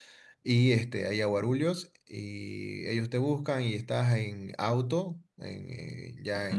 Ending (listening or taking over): listening